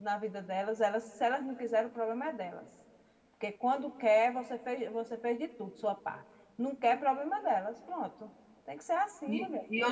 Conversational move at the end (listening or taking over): taking over